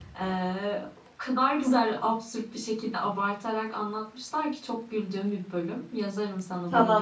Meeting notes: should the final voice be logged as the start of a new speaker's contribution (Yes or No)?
Yes